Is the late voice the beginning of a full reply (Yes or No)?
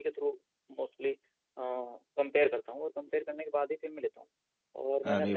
No